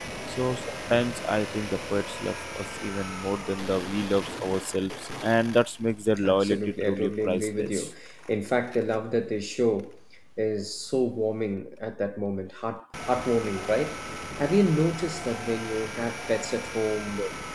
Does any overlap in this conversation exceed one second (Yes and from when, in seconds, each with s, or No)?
Yes, from 6.2 s